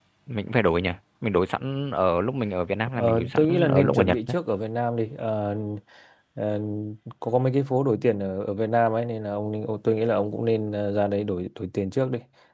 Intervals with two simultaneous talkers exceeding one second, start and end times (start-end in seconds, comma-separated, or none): 3.0-4.2